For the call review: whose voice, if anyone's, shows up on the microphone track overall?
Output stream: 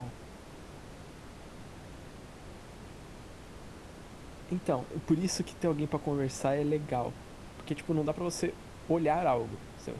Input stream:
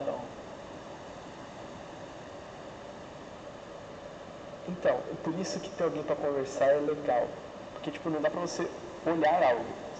echo only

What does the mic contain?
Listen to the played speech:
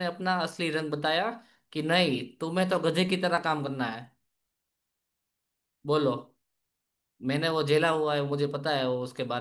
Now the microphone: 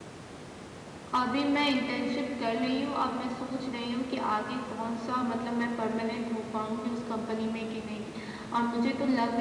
user only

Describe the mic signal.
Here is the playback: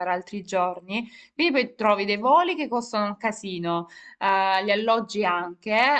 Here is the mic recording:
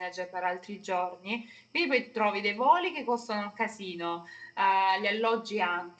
echo only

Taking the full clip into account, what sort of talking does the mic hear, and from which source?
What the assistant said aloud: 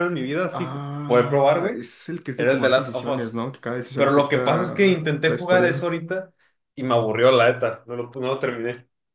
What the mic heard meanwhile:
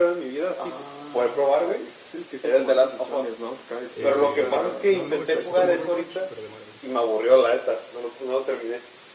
both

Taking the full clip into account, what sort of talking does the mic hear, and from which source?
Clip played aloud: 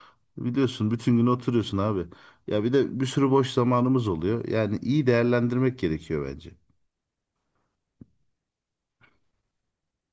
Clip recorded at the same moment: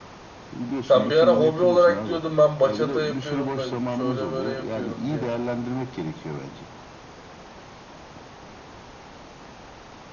both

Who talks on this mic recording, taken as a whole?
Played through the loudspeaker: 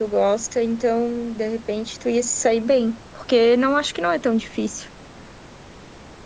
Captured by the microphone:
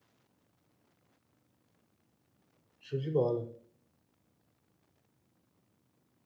user only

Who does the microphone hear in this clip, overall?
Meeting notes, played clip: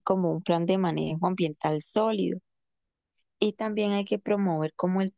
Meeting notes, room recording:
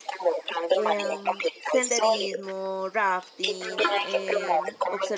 both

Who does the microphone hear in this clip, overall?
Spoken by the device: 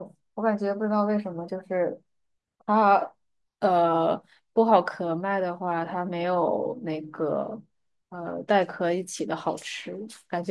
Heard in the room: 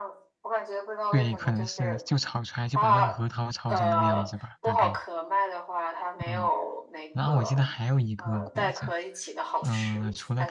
both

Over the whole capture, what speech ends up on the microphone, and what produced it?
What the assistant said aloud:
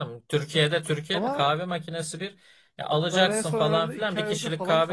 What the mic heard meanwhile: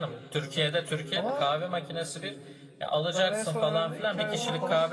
both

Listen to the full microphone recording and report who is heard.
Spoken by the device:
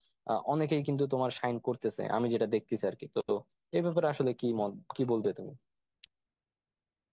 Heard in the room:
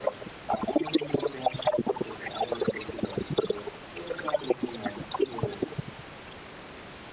echo only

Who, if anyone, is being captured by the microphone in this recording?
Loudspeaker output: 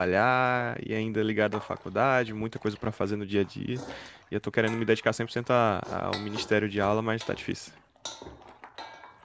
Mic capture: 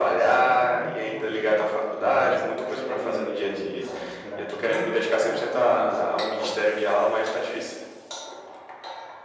both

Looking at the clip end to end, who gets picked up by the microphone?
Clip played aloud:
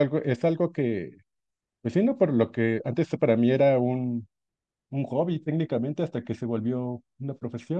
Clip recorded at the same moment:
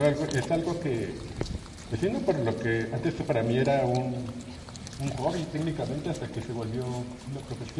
echo only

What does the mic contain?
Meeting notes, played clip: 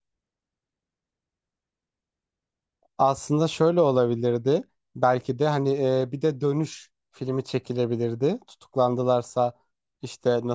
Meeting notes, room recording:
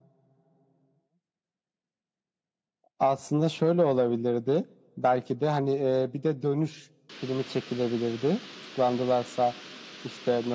echo only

